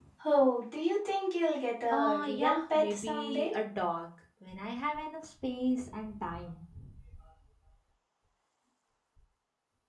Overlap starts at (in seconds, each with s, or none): 1.9 s